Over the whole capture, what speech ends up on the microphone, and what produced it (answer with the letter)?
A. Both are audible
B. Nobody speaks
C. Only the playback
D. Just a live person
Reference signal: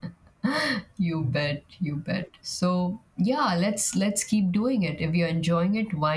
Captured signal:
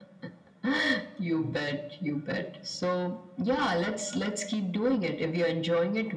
C